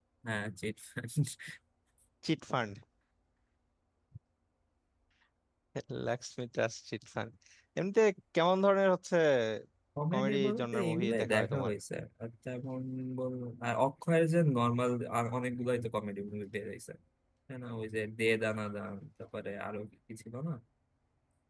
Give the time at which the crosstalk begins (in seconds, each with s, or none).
10.1 s